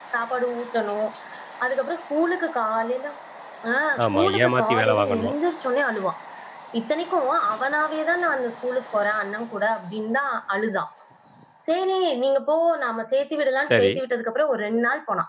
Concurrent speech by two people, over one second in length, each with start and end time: 4.0-5.3

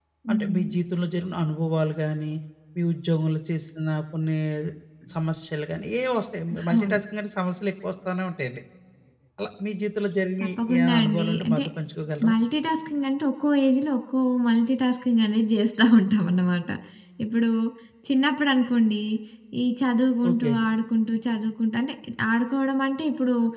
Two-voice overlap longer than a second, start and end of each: 10.4-11.6

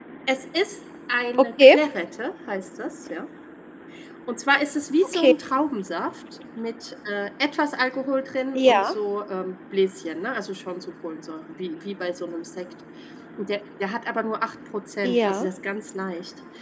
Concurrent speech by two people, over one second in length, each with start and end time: none

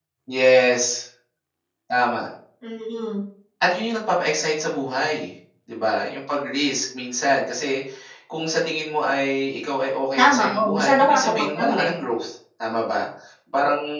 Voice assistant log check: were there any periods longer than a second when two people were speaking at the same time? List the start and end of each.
10.2-11.9

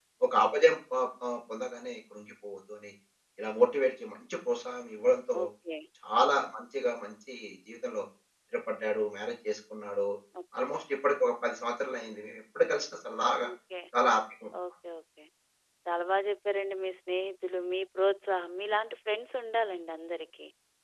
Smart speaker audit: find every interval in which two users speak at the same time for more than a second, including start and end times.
none

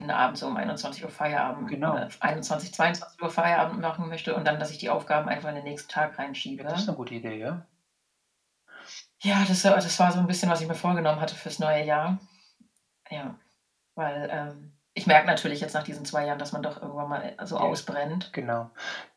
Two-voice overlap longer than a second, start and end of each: none

